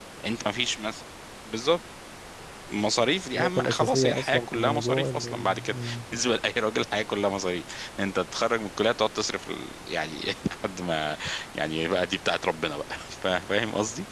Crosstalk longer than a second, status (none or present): present